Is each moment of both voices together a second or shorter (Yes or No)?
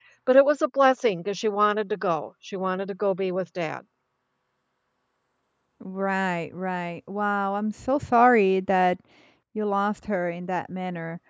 Yes